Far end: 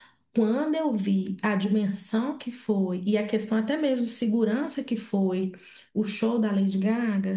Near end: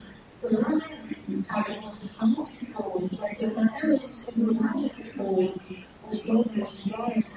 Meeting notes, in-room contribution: none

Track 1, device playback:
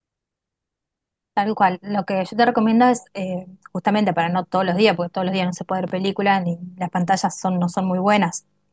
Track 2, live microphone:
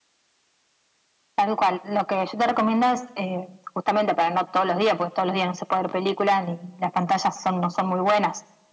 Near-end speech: none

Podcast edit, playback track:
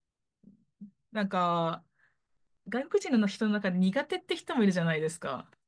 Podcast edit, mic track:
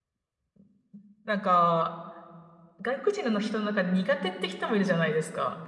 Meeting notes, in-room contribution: none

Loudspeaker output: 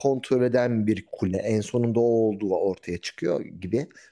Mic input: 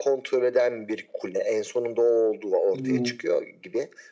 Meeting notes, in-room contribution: present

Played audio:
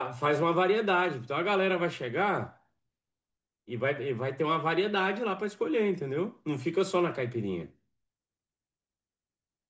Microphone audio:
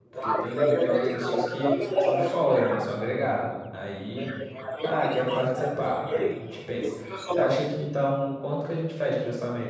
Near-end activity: present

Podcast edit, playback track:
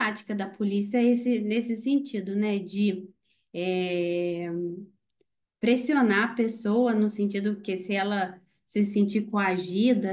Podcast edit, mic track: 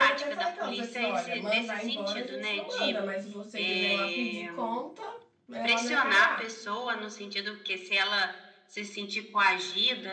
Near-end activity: present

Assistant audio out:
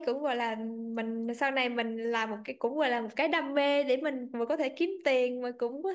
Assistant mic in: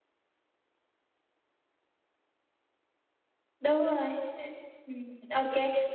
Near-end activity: present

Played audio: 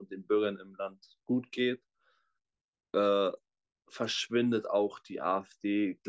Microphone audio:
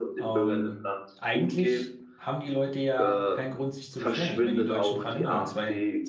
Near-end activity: present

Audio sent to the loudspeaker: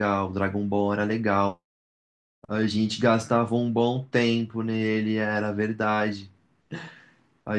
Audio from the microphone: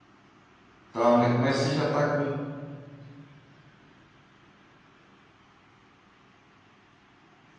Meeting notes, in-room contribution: present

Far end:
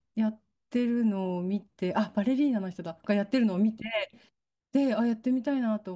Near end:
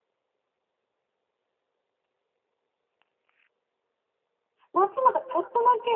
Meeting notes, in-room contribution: present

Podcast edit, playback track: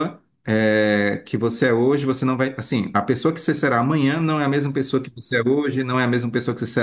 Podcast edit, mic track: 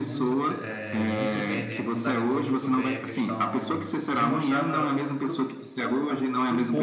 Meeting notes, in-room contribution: present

